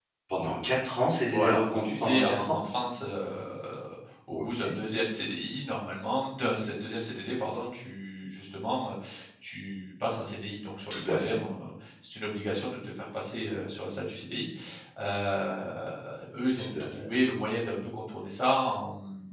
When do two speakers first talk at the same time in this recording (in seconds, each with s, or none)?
1.3 s